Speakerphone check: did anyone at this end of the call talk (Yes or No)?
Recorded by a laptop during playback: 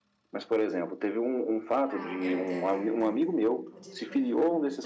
Yes